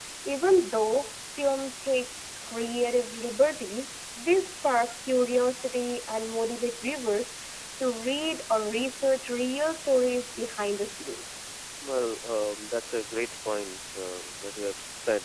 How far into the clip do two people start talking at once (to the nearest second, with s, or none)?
none